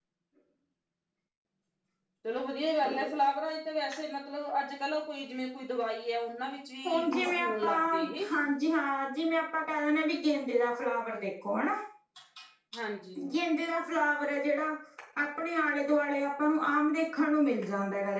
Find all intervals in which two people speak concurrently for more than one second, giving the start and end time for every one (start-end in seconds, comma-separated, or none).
6.9-8.3